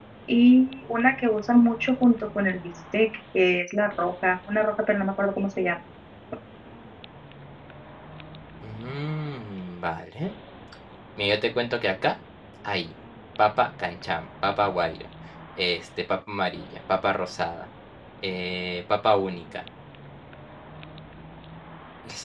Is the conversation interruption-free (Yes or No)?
Yes